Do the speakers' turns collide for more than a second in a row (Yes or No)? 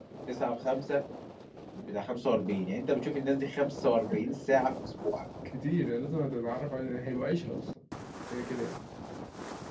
No